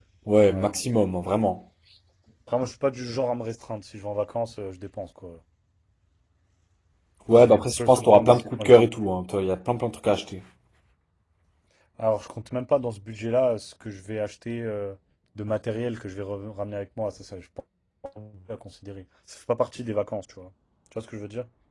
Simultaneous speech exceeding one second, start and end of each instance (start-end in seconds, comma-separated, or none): 7.3-8.9